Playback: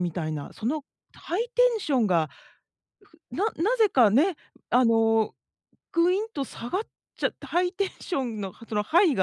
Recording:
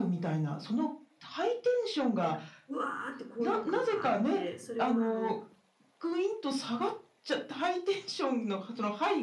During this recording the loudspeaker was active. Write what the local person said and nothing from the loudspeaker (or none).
なんか、うわって高揚感があって、それがあの